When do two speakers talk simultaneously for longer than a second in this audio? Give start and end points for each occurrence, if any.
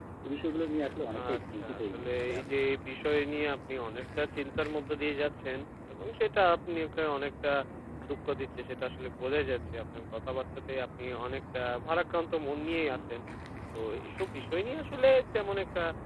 1.2-2.6

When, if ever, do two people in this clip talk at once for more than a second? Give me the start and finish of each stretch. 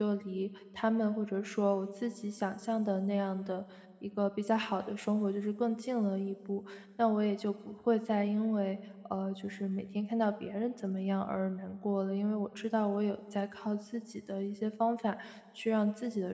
none

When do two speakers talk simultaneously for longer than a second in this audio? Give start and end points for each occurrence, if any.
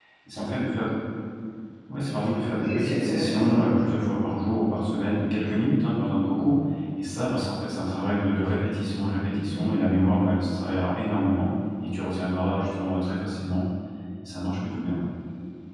2.4-3.6

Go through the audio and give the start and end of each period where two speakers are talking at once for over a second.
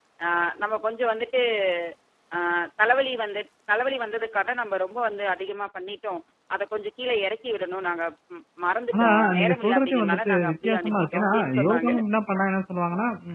8.9-11.9

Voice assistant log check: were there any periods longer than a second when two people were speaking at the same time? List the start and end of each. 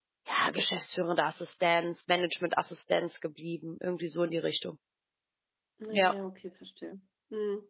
none

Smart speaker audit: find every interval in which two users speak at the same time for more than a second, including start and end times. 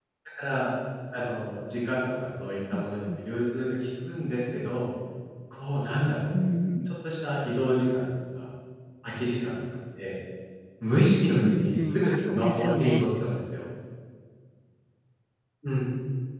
11.5-13.0

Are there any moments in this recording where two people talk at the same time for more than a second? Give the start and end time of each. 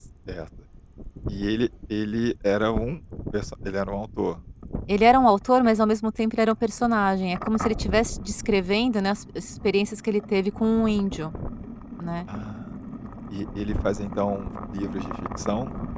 none

